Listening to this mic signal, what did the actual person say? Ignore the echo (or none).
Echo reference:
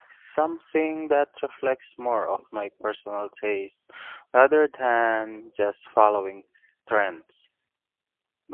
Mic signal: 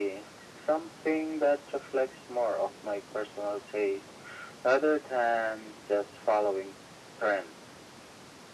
none